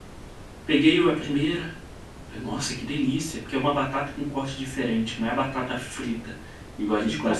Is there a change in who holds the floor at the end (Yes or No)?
Yes